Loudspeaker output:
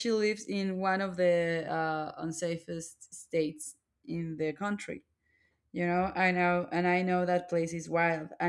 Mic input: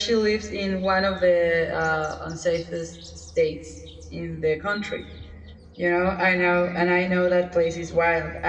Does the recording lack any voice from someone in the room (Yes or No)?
Yes